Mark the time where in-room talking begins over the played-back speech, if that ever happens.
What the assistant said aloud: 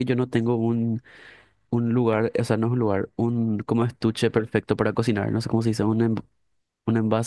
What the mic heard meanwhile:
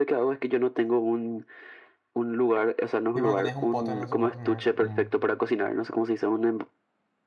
3.1 s

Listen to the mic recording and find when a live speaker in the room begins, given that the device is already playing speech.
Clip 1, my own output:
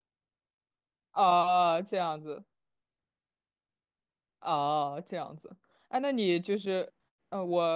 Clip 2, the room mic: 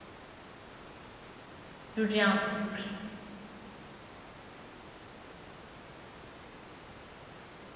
1.9 s

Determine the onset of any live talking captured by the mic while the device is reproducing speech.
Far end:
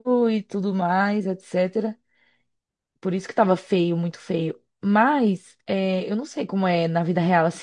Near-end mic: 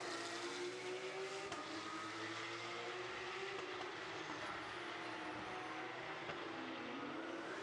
none

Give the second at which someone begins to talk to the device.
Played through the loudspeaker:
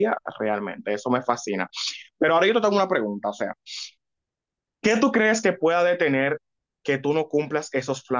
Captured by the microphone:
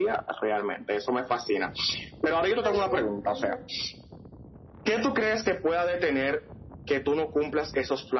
2.4 s

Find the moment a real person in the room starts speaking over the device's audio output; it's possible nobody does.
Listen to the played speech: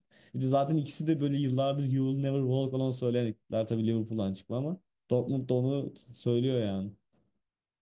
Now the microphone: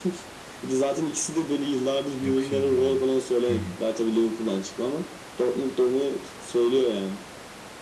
2.2 s

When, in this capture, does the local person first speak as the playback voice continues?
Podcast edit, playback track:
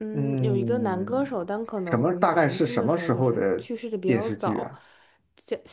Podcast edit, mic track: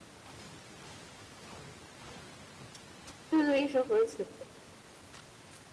3.3 s

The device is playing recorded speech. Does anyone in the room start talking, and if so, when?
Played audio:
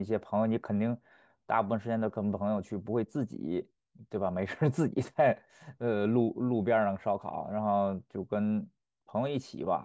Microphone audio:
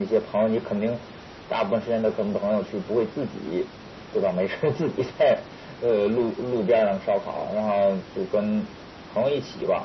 none

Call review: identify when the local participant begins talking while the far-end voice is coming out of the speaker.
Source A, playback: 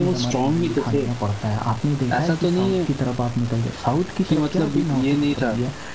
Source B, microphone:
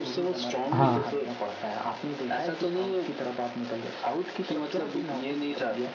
0.7 s

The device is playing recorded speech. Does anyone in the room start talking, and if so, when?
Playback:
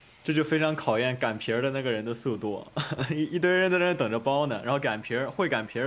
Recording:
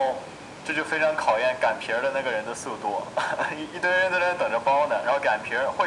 none

